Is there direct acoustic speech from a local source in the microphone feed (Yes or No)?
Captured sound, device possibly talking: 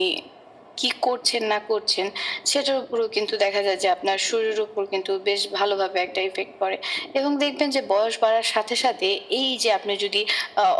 No